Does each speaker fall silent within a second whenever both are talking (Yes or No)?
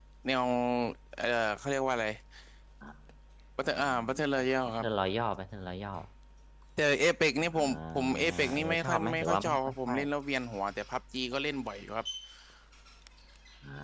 No